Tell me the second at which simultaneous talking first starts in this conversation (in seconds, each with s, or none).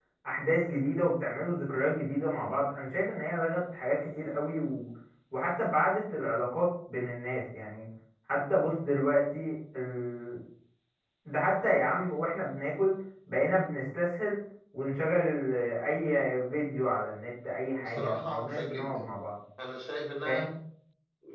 17.8 s